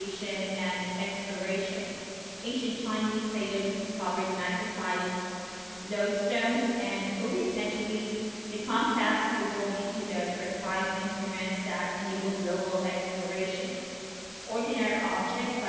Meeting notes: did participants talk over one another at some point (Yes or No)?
No